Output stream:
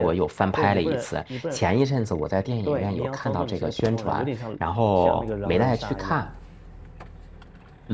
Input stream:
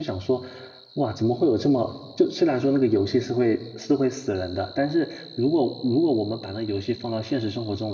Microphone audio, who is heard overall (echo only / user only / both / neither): user only